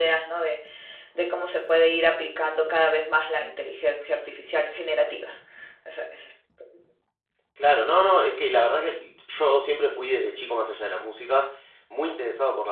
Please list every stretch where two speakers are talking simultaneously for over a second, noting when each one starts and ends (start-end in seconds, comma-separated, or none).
none